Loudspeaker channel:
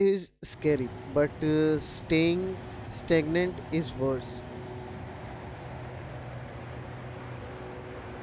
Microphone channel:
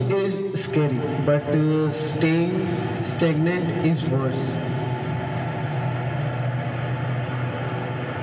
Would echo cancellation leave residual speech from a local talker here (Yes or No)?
No